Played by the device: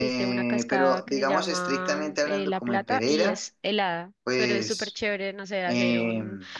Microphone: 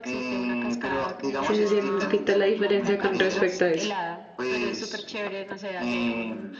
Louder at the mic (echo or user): user